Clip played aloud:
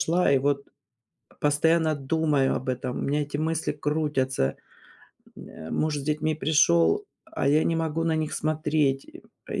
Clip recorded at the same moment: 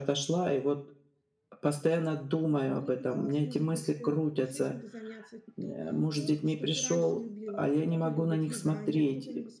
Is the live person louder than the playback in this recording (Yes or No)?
No